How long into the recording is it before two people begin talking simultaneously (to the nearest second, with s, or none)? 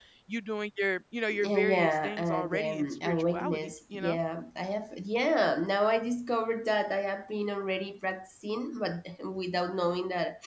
1 s